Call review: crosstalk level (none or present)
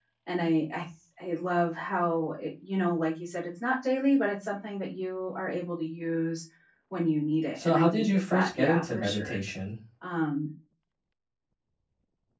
present